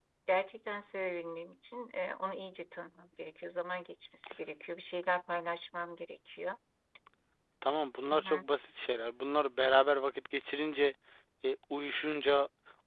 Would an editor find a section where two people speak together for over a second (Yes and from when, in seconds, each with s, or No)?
No